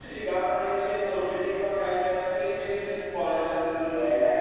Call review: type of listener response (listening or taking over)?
taking over